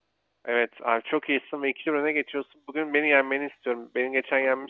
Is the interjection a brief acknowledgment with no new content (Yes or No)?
Yes